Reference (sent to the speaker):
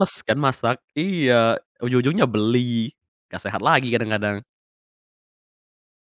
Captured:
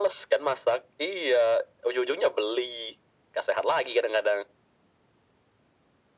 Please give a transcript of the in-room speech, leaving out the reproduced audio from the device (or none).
none